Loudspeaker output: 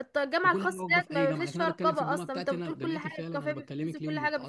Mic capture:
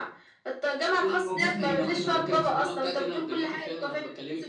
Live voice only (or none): في ناس ما بتخش بالرقاب